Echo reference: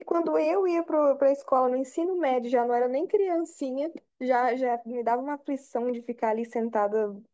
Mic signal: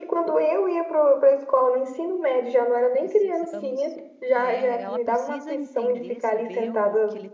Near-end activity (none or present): present